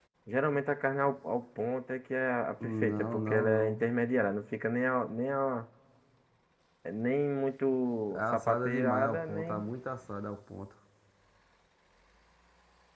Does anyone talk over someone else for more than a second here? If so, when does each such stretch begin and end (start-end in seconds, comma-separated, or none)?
2.6-3.8, 8.1-9.6